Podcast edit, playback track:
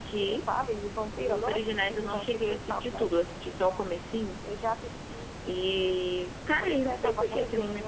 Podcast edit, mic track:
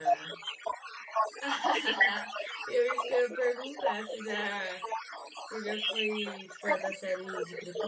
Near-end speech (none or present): present